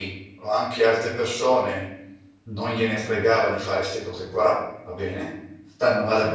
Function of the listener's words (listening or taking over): listening